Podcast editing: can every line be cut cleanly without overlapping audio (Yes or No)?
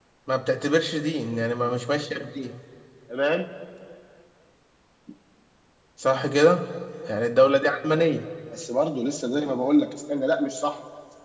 Yes